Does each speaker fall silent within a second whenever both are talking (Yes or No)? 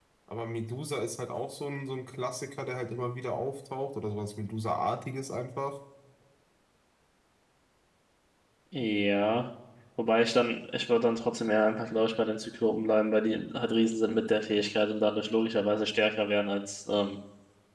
Yes